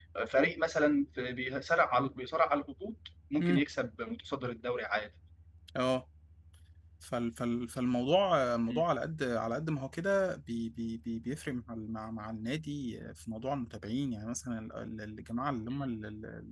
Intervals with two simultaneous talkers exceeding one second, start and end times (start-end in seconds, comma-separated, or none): none